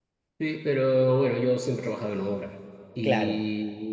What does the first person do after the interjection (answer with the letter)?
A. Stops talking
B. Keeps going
B